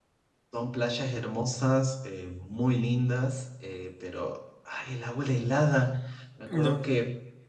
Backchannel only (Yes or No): Yes